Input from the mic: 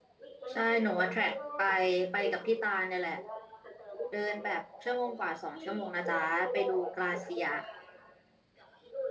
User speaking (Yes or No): Yes